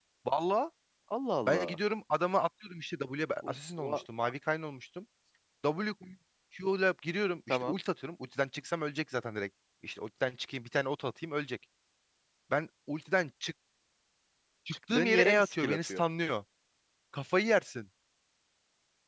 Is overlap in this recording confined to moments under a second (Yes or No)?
No